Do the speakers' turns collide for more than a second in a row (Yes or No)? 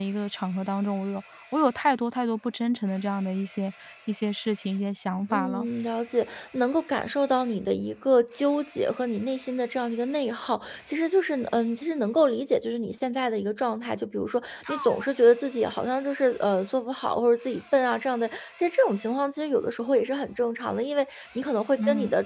No